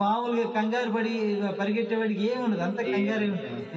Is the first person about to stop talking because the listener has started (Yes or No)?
Yes